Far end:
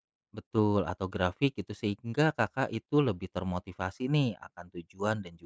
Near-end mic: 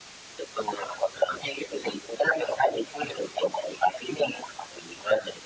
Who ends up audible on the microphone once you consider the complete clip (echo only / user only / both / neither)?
echo only